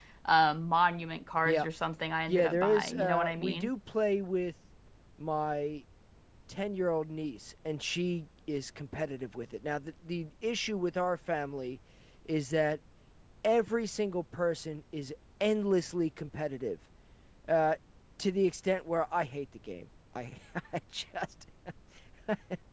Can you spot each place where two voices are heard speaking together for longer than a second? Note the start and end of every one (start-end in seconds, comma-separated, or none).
2.3-3.7